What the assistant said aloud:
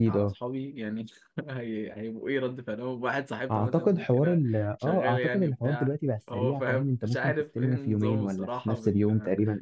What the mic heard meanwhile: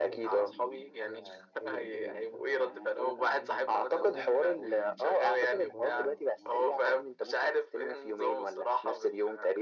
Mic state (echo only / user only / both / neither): both